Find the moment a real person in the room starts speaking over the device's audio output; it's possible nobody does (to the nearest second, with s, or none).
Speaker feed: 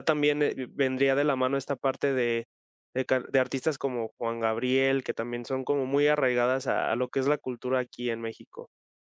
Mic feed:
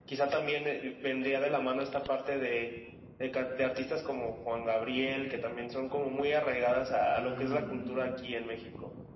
7 s